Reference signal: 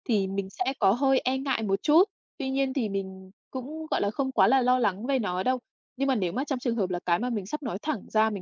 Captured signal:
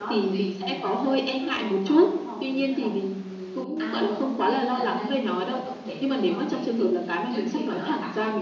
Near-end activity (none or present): present